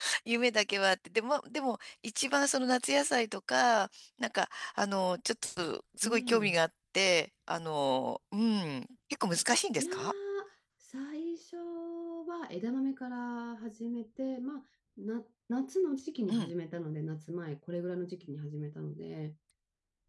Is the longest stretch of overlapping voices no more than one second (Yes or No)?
Yes